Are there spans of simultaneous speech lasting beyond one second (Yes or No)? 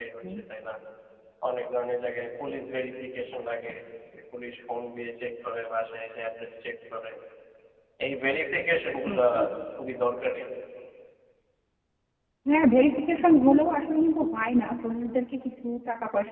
No